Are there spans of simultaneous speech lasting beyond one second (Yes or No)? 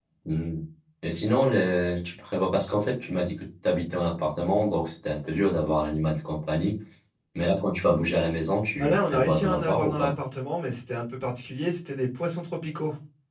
Yes